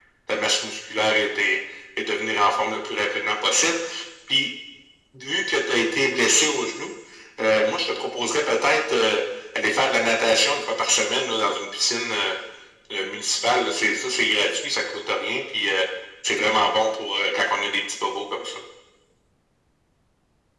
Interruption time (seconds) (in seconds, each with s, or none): none